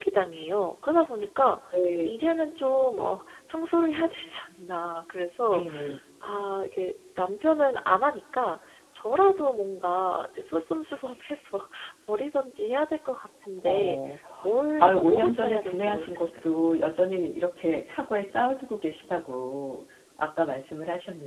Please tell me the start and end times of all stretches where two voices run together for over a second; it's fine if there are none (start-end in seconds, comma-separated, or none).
14.8-16.3